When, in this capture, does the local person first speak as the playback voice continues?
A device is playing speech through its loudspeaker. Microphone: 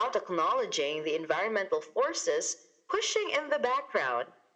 none

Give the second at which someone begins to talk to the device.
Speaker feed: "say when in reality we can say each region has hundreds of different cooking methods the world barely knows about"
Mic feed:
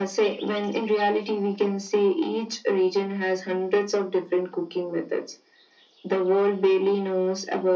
none

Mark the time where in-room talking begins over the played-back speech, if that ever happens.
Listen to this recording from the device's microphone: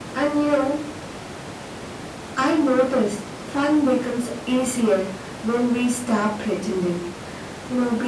none

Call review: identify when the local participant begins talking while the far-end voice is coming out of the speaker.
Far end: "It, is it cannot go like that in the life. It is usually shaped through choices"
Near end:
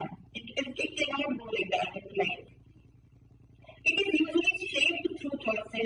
none

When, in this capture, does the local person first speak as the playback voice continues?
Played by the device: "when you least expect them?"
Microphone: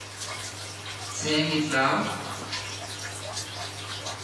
1.1 s

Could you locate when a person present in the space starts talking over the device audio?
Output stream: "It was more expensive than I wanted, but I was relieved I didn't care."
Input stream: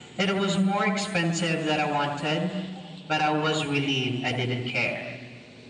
none

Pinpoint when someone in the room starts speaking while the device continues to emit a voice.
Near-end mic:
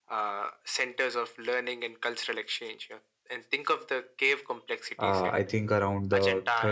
5.0 s

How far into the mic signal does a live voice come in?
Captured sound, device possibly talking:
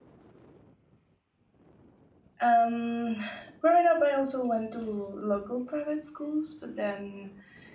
2.4 s

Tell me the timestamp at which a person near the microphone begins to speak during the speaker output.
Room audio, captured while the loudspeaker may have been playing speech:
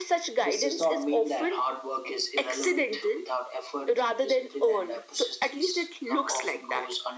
none

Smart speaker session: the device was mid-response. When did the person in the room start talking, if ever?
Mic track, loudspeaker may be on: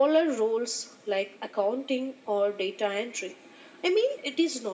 none

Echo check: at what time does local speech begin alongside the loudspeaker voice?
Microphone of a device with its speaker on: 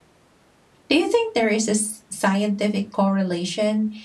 0.9 s

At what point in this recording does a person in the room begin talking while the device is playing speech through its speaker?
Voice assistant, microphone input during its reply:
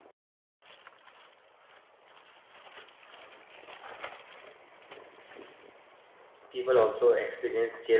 6.5 s

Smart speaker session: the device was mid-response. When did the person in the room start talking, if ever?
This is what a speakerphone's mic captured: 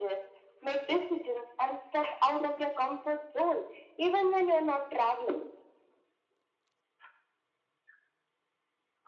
none

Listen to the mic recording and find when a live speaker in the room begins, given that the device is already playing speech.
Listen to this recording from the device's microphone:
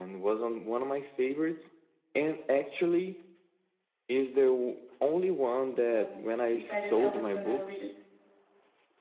5.9 s

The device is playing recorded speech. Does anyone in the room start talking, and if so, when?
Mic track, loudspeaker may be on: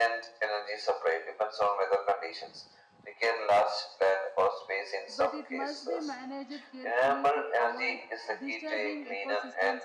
5.1 s

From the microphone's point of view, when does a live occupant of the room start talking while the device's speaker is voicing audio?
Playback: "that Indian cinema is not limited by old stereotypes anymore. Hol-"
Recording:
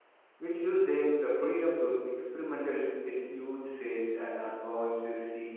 0.4 s

